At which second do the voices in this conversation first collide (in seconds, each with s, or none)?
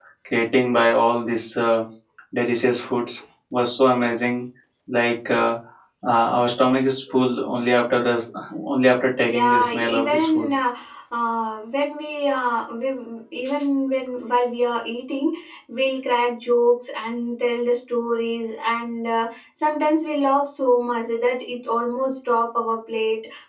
9.2 s